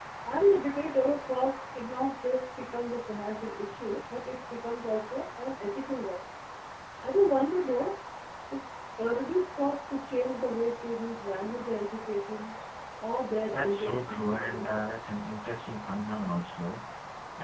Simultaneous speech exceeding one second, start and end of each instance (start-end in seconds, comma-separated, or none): 13.5-15.0